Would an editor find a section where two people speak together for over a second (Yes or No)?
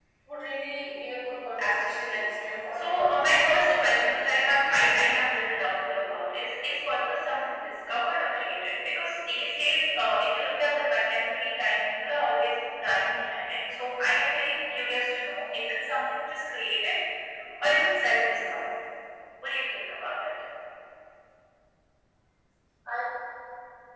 Yes